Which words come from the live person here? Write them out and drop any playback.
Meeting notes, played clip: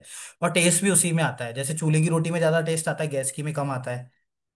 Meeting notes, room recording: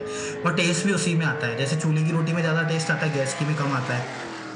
none

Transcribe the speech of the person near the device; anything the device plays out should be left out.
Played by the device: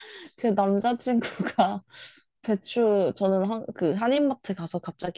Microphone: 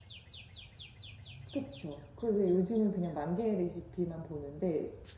그쵸. 그래서 요즘은 그냥 만 개의 레시피만 보는데,

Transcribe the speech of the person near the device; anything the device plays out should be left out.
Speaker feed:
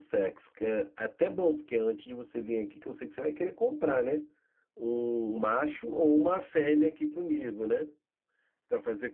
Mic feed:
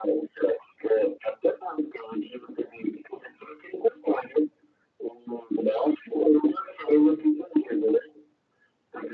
none

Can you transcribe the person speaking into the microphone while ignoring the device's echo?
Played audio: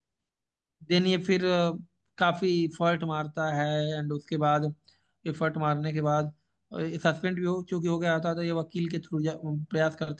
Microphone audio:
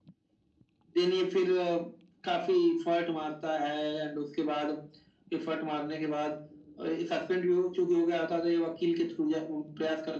none

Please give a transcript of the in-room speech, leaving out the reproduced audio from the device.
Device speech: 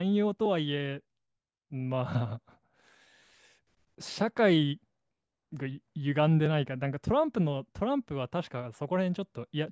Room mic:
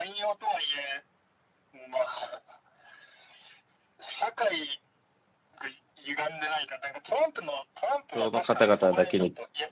その方々だけに、

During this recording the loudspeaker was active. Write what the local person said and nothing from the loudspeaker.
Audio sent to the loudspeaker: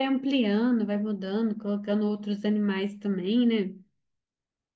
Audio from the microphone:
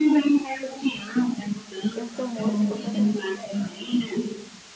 Já são outros completamente diferentes.

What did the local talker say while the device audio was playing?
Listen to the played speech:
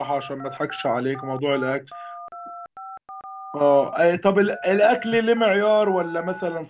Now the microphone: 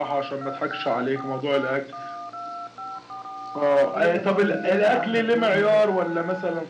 ايه ده طيب ايه اللي عاملك ايه اللي مضايقك

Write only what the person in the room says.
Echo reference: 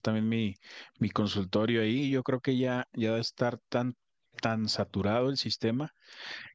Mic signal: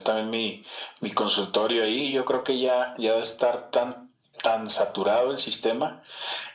none

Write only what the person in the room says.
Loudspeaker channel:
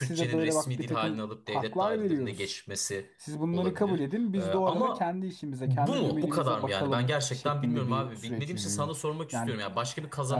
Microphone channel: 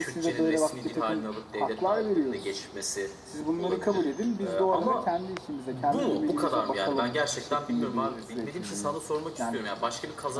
none

